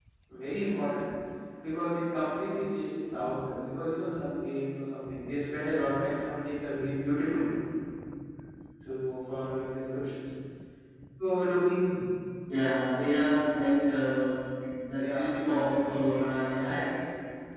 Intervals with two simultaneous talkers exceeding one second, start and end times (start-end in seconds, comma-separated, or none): 15.0-16.8